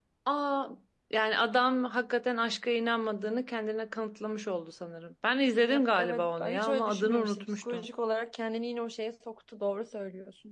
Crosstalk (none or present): present